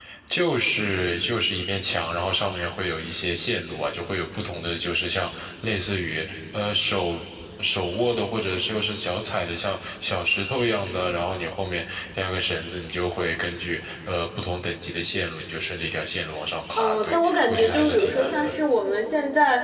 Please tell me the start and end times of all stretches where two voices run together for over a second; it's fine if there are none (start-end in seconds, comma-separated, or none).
16.8-18.5